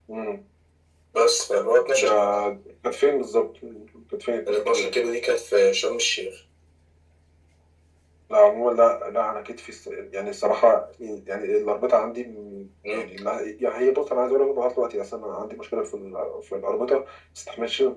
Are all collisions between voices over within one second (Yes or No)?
Yes